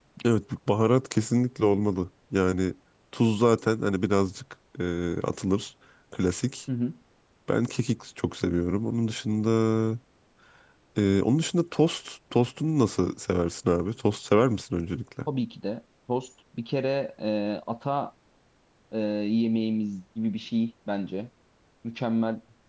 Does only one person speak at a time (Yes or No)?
Yes